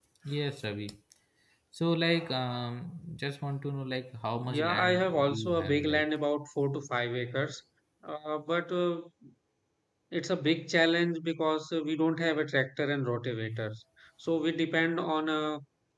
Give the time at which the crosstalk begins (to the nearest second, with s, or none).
4 s